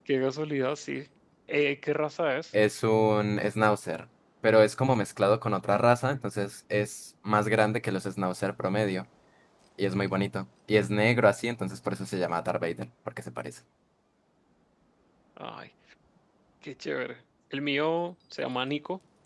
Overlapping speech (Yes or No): No